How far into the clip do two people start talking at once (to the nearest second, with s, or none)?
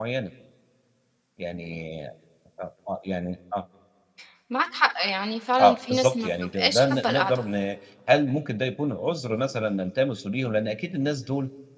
6 s